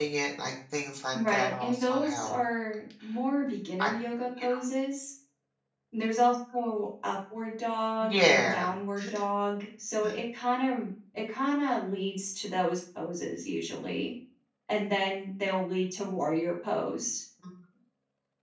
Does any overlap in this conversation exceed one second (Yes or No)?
Yes